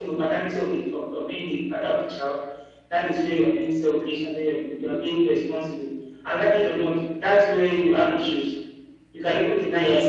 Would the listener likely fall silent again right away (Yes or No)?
Yes